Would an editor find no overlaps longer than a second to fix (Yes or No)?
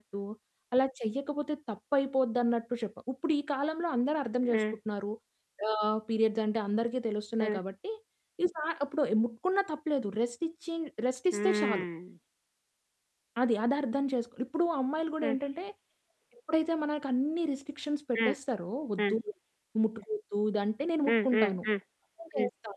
Yes